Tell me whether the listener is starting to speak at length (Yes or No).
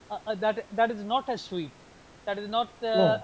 No